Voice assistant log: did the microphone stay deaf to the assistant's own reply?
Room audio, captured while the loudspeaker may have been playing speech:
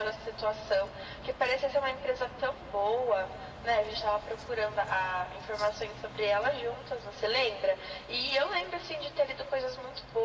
No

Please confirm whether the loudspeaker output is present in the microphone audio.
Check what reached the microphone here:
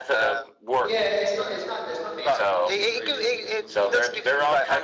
Yes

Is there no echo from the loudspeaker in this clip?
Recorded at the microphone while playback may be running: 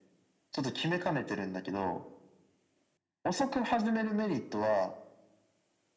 No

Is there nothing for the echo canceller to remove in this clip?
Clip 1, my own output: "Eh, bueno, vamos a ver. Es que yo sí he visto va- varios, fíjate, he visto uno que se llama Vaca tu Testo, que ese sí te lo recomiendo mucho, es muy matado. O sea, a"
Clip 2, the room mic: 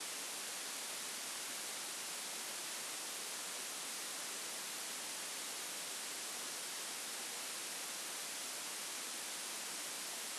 Yes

